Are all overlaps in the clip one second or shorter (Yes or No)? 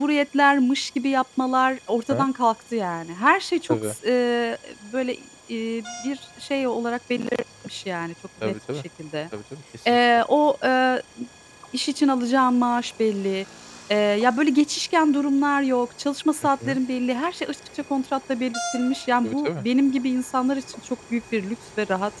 Yes